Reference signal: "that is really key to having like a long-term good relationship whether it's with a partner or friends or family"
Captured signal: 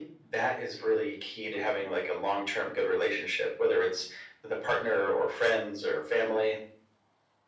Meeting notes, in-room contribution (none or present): none